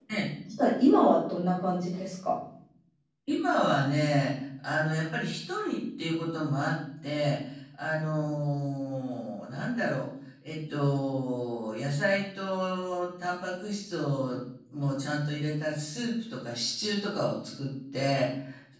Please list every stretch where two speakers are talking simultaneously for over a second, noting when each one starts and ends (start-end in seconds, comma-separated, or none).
none